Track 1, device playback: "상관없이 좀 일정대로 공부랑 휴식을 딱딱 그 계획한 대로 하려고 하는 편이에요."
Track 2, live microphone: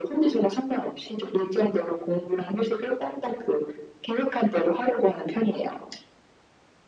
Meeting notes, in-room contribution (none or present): none